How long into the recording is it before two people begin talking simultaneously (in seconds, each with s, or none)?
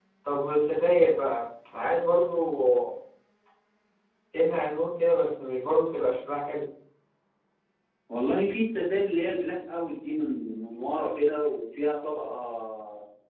none